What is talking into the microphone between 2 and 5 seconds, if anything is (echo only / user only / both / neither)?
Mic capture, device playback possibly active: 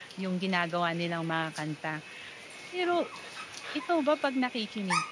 user only